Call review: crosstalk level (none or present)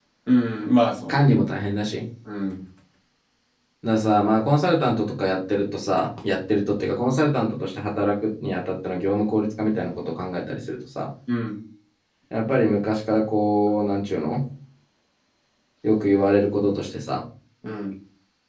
none